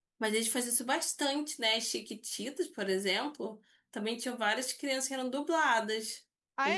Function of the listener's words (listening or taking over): taking over